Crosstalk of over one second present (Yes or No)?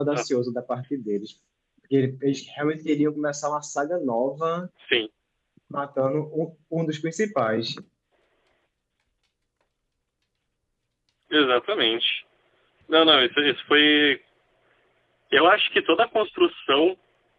No